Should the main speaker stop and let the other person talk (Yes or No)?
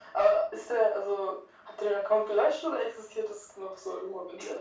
Yes